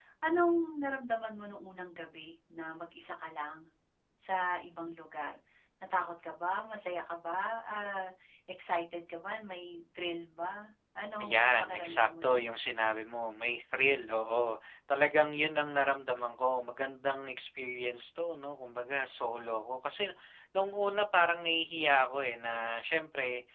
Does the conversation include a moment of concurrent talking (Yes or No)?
Yes